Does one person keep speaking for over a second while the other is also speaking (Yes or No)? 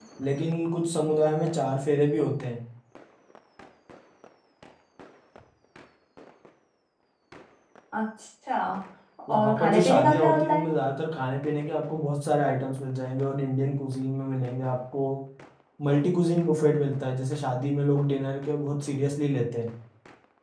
Yes